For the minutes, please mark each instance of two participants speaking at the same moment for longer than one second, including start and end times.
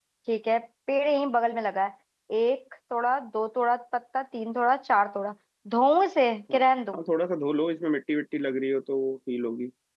none

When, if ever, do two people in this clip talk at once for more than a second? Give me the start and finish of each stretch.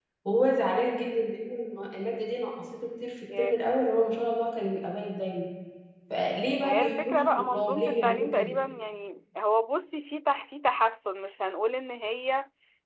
6.6-8.6

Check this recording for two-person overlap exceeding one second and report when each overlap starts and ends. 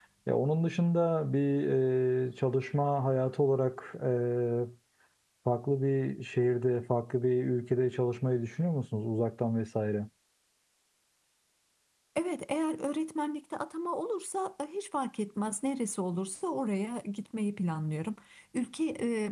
none

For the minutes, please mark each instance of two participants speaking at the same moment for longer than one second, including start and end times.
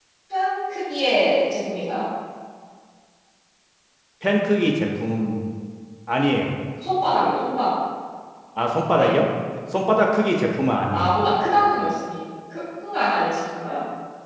none

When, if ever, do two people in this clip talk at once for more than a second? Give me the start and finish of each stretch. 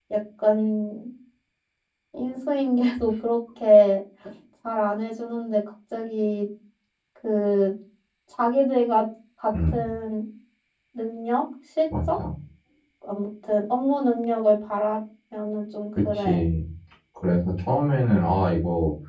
none

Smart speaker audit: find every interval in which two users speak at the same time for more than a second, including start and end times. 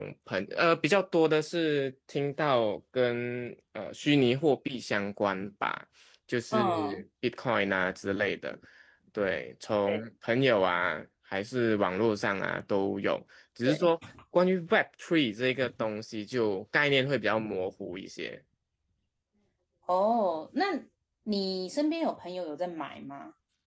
none

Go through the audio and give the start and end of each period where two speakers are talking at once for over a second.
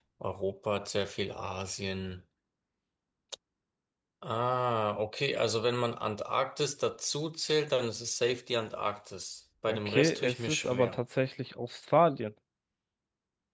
9.7-11.0

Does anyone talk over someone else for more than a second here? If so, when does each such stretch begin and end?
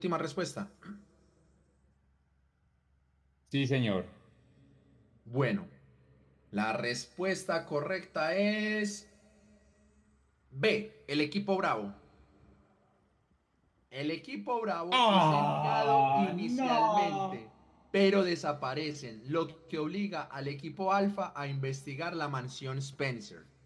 14.9-17.4

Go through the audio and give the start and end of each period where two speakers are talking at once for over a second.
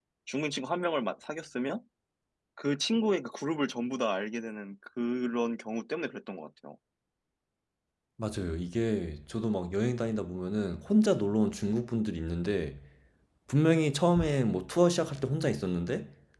none

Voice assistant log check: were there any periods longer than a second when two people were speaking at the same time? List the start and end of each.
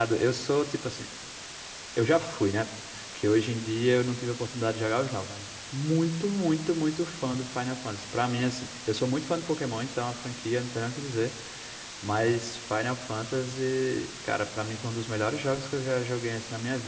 none

